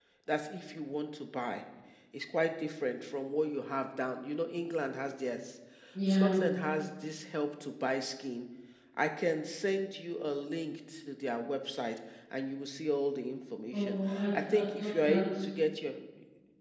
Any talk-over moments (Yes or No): Yes